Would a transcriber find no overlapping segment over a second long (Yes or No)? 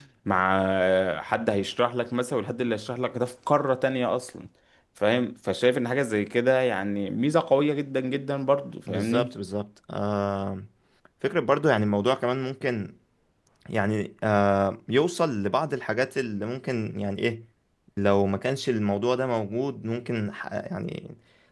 Yes